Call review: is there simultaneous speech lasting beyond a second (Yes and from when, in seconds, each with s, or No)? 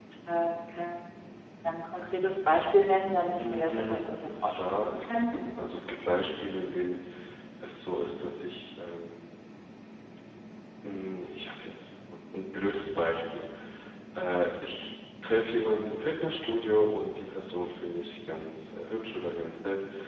Yes, from 3.4 s